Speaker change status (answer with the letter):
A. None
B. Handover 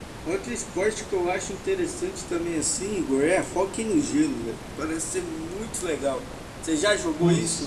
B